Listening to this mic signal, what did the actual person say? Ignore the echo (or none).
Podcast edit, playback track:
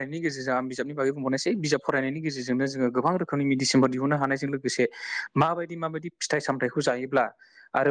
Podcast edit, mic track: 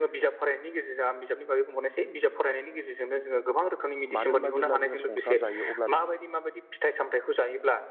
मानो होनबा जेब्ला जोङो संसार जायो अब्ला